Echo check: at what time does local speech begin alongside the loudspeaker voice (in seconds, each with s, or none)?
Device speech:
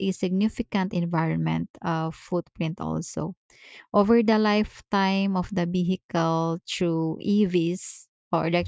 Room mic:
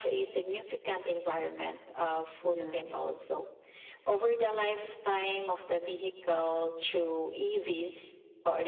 2.4 s